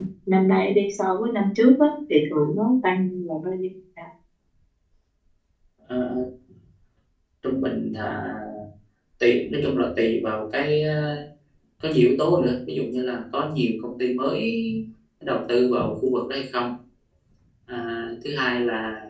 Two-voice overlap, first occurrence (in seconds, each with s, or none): none